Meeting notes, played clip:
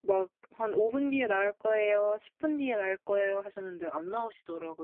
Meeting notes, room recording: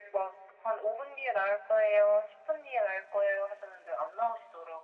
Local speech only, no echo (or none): none